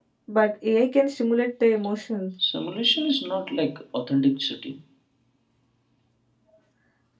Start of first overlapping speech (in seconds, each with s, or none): none